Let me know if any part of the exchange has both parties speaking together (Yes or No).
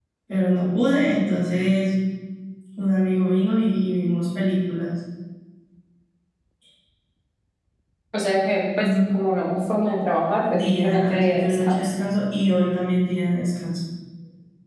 Yes